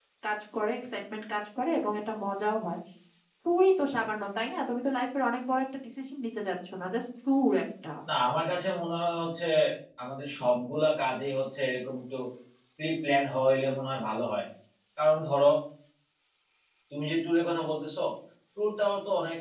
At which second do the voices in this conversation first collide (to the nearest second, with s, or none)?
none